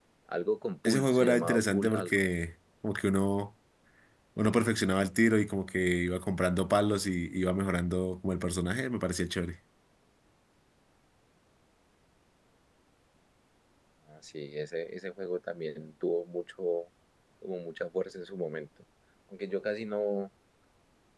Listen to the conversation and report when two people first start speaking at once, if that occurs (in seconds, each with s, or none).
0.8 s